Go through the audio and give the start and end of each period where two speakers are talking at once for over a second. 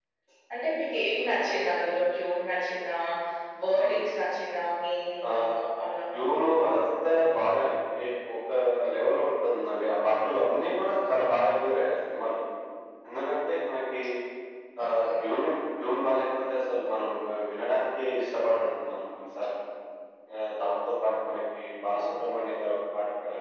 none

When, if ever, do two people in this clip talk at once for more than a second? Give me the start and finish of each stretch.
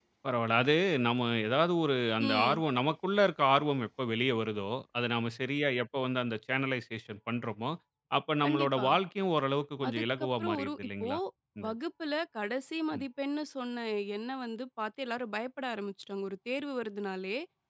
9.9-11.1

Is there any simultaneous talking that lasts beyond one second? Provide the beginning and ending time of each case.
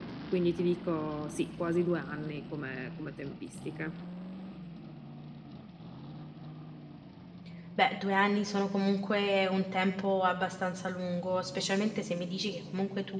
none

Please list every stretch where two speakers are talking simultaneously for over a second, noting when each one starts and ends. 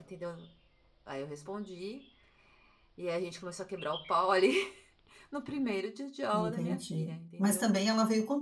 6.3-7.7

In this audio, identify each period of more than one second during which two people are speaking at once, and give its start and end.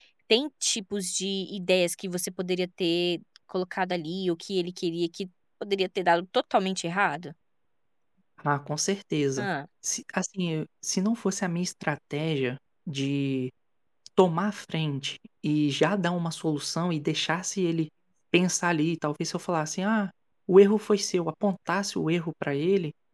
none

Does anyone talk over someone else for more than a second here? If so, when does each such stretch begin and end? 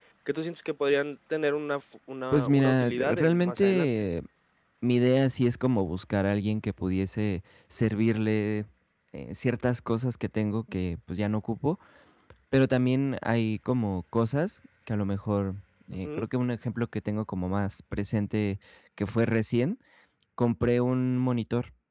2.3-3.9

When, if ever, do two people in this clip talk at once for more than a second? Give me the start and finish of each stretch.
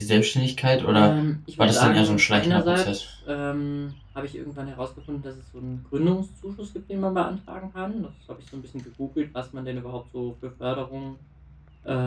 1.6-2.8

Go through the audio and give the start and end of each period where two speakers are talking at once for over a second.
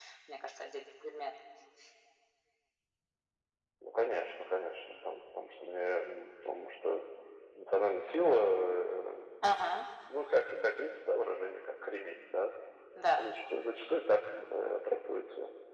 none

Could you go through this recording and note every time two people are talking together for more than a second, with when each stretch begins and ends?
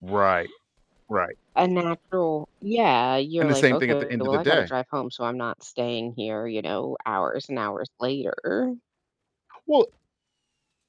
3.4-4.7

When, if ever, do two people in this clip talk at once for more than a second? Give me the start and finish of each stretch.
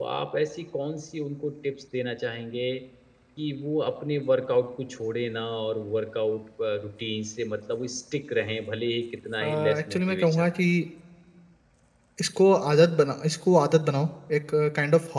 9.4-10.6

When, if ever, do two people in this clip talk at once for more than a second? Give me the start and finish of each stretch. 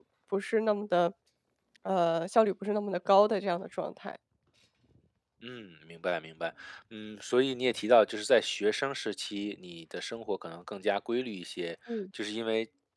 none

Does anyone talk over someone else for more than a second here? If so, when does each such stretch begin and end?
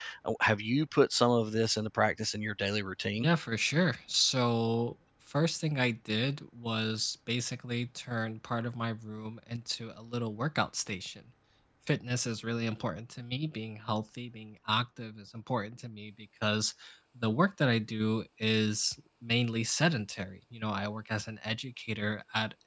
none

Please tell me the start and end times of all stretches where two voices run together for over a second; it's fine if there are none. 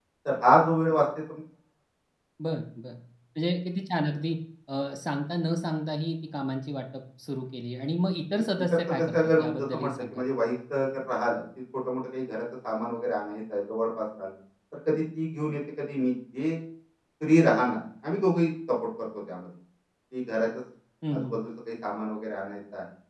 8.9-10.2

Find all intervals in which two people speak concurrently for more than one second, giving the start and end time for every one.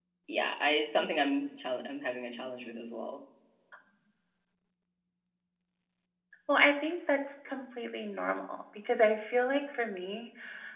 none

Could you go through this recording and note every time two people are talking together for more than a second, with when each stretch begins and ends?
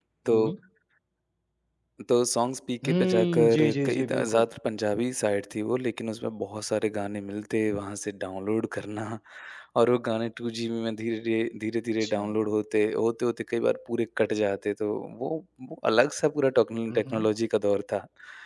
2.9-4.5

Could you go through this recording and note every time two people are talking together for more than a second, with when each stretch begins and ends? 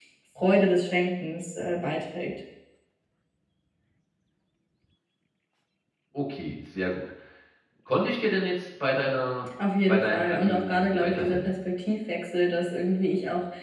9.9-11.4

